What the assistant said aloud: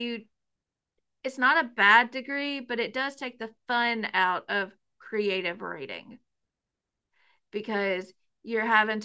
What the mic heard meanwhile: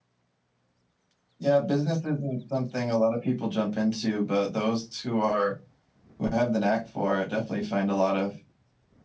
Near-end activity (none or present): present